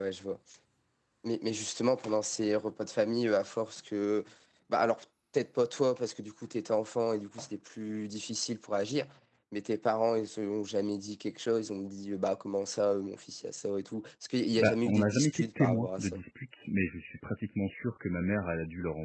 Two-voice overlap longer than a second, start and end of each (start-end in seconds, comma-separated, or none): 14.6-16.2